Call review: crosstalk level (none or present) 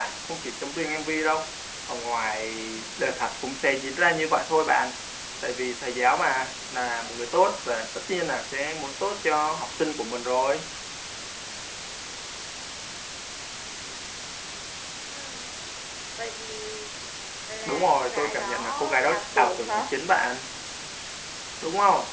present